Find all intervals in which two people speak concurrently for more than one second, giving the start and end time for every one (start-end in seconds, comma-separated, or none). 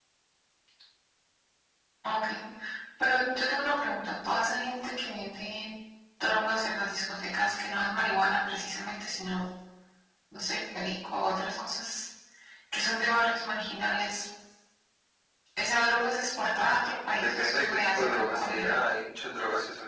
17.1-18.8